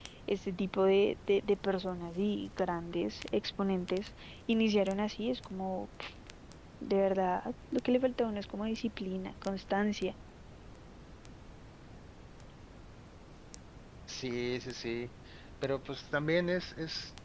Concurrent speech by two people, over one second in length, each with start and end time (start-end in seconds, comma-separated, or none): none